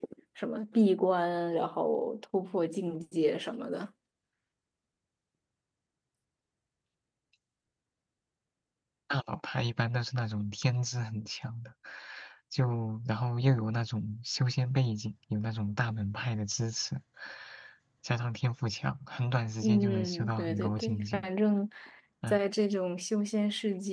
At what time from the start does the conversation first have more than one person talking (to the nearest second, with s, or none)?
20 s